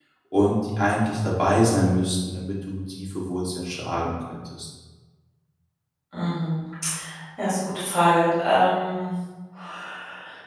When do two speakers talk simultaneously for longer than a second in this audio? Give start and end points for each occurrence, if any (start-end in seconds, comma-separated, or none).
none